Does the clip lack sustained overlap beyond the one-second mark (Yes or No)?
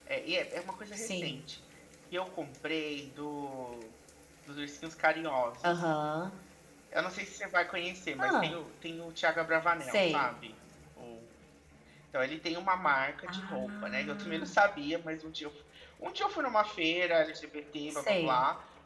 No